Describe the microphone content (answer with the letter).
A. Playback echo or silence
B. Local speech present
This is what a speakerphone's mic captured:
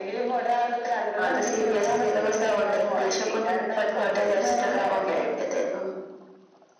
A